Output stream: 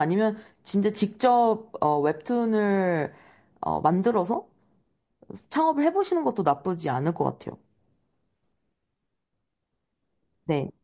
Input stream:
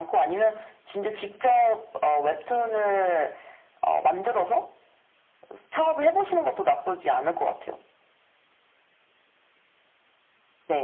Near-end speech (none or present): none